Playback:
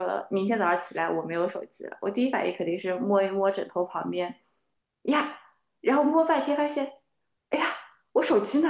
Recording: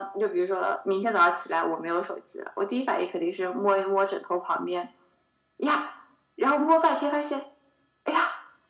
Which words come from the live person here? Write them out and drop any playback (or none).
none